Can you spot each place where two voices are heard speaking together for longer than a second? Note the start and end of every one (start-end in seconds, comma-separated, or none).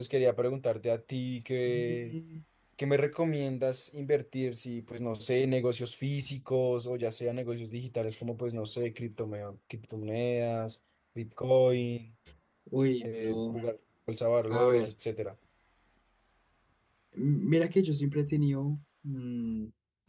none